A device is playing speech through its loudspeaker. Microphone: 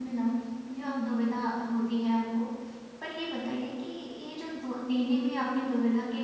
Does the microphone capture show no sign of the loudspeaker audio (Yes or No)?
Yes